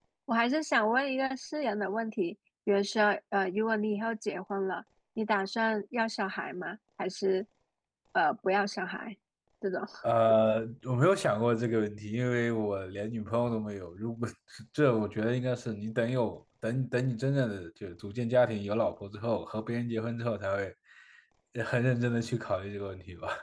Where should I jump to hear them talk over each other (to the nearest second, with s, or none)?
none